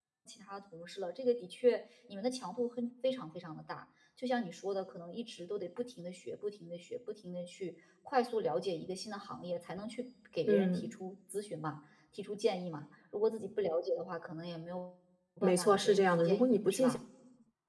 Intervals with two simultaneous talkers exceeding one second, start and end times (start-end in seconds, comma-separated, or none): 15.4-17.0